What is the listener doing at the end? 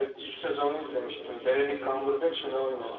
taking over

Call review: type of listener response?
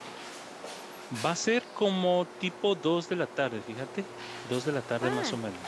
taking over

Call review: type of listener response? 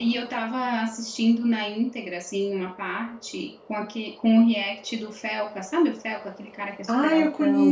taking over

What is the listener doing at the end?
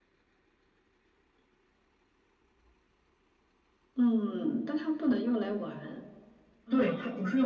taking over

